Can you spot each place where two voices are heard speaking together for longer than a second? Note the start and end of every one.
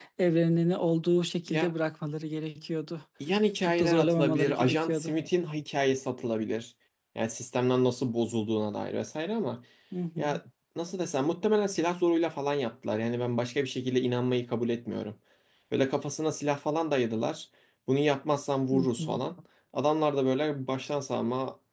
3.6-5.2

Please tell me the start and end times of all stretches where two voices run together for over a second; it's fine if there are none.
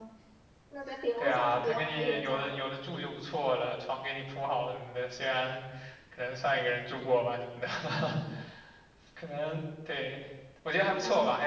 1.2-2.6

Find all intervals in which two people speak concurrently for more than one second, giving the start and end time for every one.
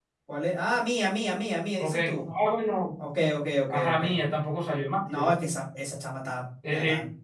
none

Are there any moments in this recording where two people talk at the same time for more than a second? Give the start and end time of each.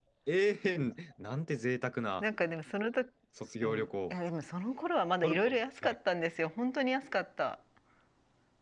none

